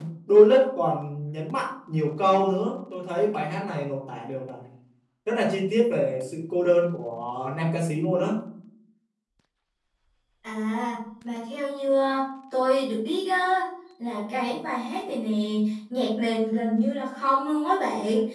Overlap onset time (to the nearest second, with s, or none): none